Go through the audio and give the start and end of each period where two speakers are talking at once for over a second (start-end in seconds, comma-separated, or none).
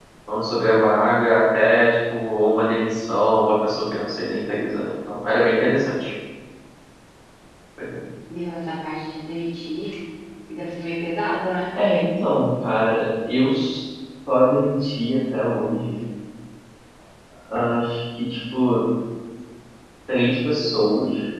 none